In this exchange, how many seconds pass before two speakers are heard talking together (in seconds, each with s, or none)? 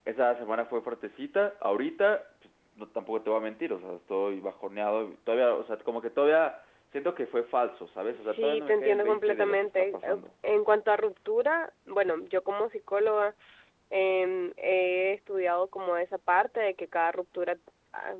8.2 s